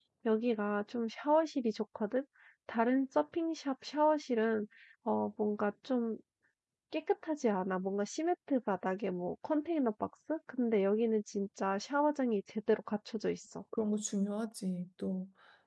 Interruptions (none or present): none